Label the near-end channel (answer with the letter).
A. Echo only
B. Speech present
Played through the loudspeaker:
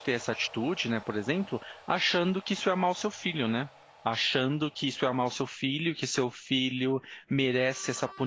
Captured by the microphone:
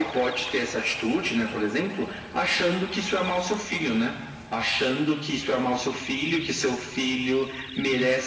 A